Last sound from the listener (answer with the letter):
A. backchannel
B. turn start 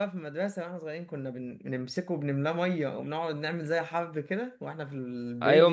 B